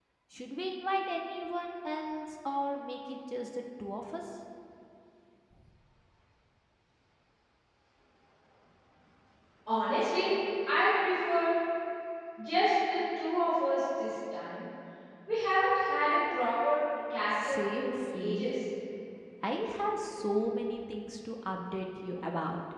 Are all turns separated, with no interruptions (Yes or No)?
No